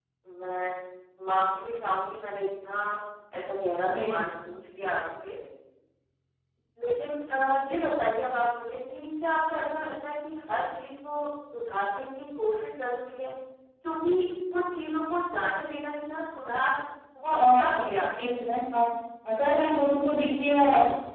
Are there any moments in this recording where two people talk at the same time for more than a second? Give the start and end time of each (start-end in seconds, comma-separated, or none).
none